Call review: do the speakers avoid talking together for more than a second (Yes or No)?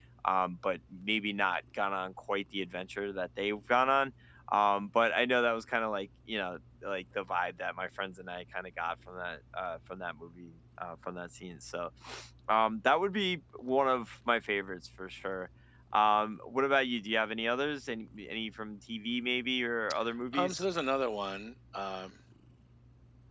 Yes